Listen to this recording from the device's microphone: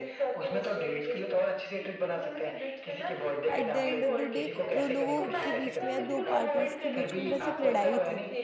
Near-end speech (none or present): present